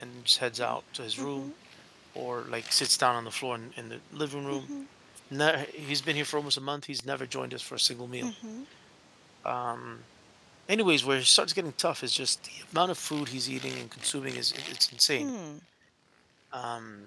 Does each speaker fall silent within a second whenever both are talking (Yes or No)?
Yes